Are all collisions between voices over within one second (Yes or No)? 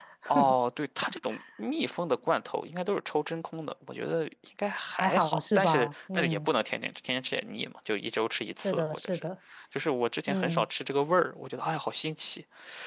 No